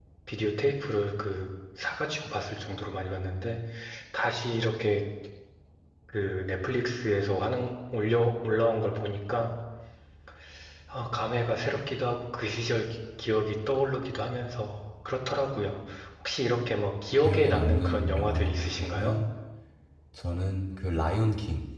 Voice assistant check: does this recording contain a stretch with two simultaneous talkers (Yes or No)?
Yes